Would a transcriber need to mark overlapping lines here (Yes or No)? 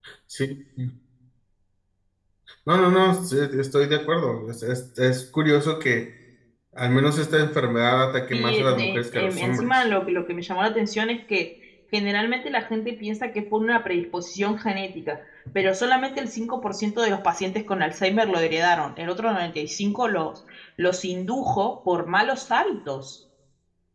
Yes